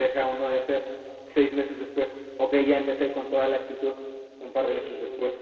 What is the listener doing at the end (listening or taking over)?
listening